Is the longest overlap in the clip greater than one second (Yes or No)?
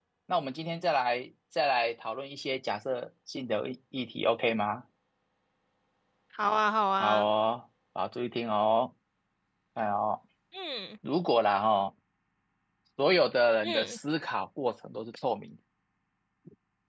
No